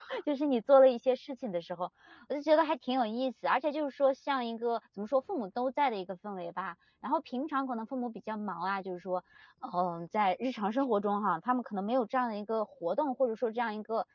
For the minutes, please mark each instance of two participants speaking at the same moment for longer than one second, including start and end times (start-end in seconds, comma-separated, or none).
none